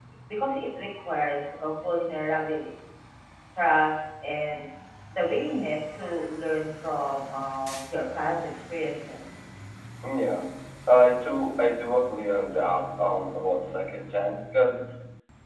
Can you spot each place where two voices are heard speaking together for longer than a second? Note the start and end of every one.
none

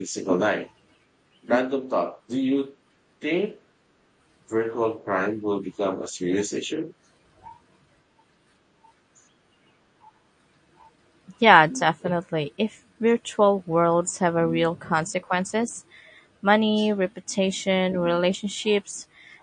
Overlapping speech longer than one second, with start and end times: none

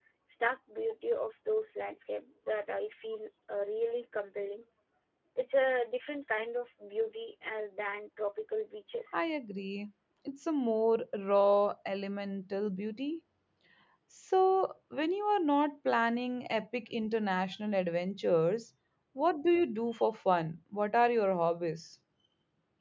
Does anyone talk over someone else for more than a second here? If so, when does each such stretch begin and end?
none

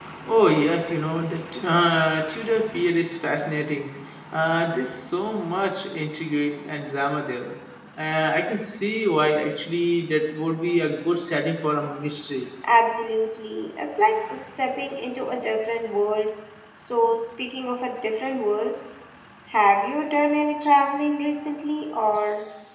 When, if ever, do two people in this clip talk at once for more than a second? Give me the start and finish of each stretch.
none

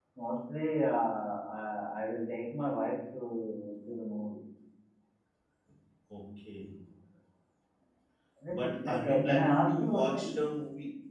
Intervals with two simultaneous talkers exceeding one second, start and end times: 8.5-10.3

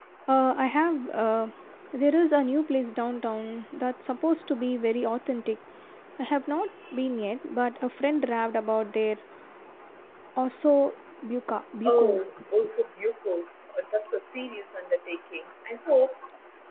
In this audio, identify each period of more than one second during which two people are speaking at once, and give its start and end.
none

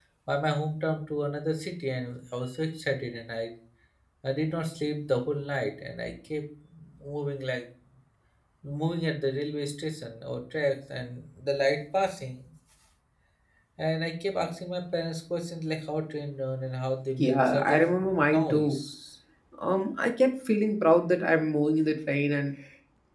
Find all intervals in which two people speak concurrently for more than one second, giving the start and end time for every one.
17.2-18.8

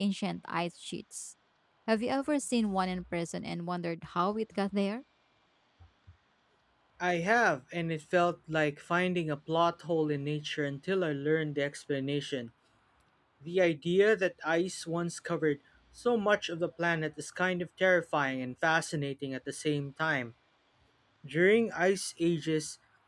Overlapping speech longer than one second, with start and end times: none

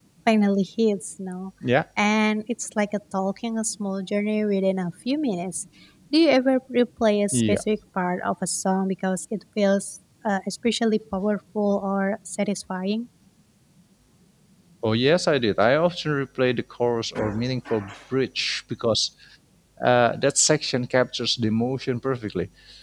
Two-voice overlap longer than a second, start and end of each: none

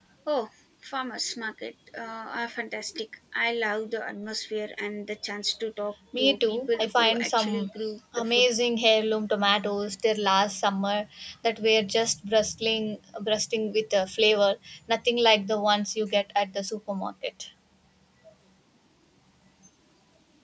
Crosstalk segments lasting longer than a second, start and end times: 6.2-7.7

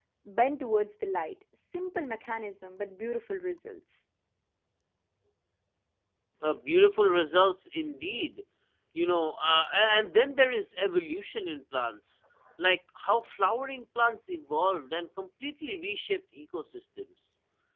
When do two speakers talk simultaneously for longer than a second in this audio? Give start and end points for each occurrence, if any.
none

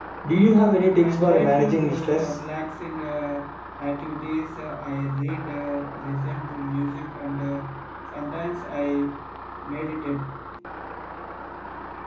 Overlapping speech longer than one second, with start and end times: 1.0-2.4

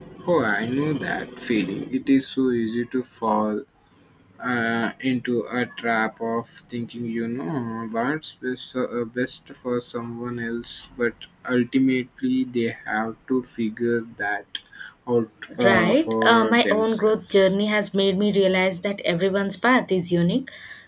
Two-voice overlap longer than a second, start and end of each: 15.6-17.5

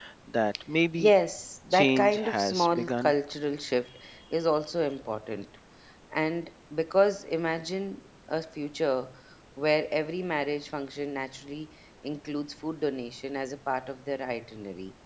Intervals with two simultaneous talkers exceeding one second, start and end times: 1.7-3.1

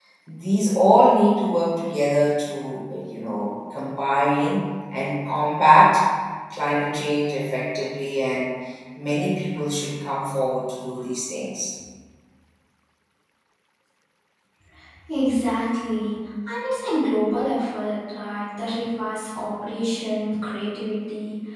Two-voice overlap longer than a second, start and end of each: none

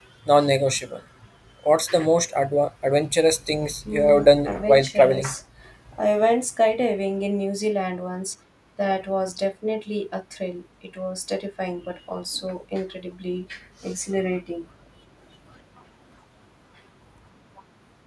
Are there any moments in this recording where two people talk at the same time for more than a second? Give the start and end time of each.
3.9-5.3

